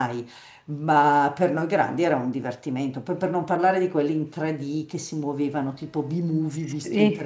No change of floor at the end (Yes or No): Yes